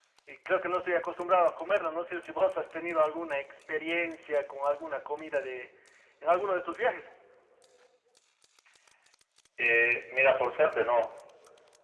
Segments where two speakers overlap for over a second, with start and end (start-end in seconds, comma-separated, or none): none